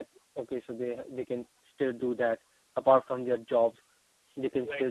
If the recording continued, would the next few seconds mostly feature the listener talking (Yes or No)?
No